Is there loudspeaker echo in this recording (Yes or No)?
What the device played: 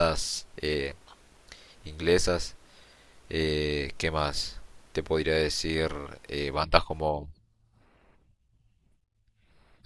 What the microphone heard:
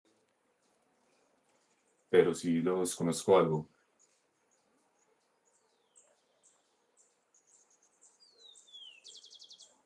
No